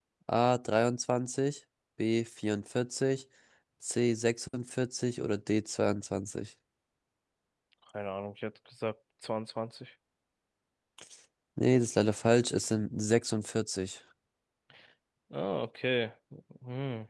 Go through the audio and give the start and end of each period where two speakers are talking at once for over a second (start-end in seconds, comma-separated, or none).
none